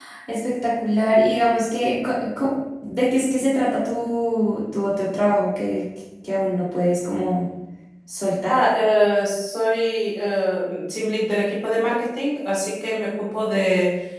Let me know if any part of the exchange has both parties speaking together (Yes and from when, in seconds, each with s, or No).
No